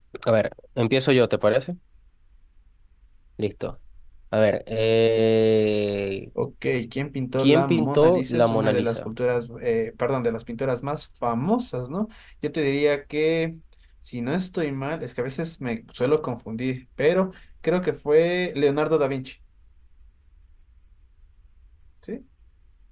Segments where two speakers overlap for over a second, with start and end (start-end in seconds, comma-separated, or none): 7.4-9.1